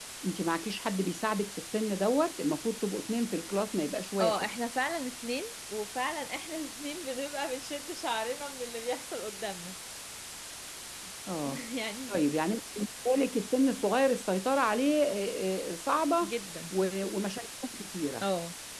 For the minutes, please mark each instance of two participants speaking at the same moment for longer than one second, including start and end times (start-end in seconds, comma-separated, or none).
none